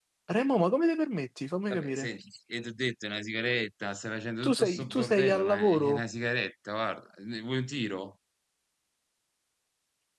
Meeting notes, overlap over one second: present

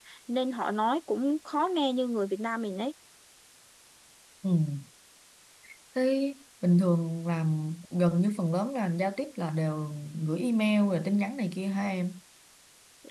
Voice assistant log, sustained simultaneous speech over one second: none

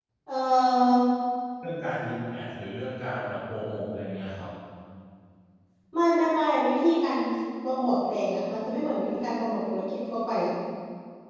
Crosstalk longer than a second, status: none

